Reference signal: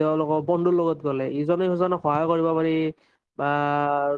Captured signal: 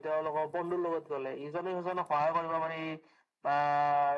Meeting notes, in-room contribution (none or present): none